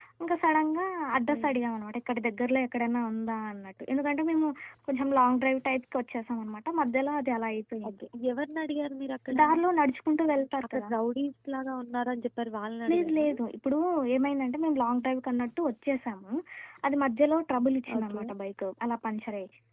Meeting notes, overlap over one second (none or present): none